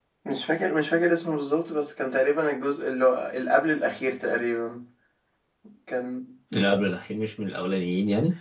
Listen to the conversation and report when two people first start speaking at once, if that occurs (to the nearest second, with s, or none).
none